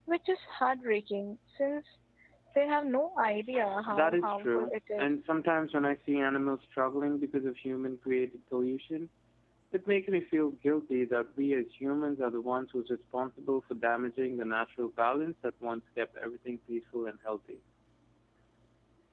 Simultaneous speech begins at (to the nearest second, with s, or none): 4 s